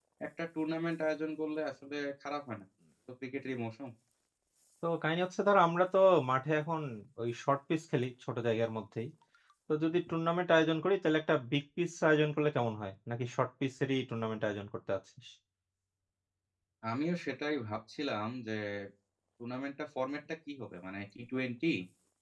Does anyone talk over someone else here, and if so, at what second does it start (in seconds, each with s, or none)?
none